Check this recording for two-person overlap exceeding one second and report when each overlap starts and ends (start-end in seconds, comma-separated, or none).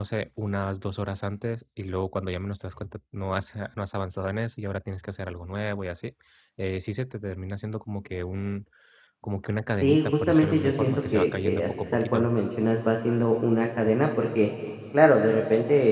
9.8-12.3